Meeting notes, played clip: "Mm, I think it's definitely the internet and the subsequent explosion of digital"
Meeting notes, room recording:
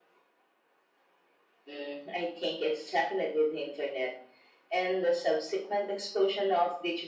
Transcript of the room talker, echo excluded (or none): none